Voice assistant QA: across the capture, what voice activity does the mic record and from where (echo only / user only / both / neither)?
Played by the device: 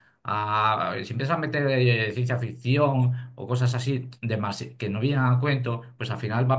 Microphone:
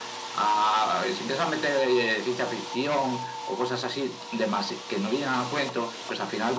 echo only